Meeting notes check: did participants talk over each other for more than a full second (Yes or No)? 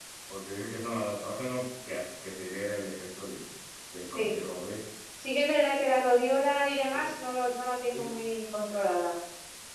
No